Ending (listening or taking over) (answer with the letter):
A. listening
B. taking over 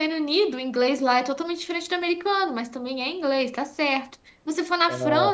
A